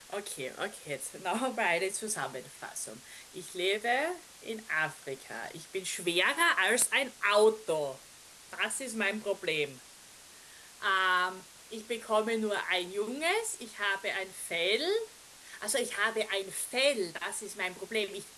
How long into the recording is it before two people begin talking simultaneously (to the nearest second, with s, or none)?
none